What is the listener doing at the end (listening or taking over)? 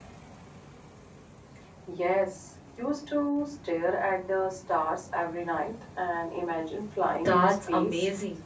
taking over